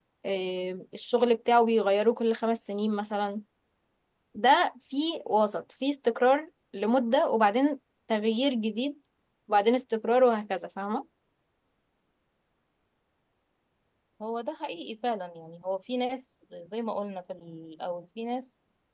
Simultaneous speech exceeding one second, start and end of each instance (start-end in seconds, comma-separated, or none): none